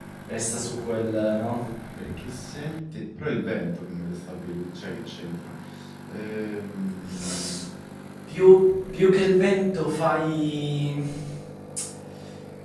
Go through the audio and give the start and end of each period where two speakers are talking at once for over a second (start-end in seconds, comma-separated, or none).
none